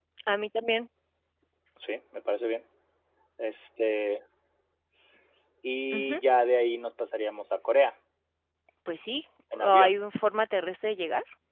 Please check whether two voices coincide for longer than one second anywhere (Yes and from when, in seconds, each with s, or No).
No